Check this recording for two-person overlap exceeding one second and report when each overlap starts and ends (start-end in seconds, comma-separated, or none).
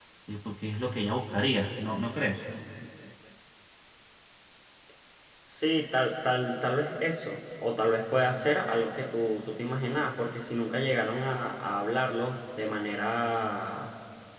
none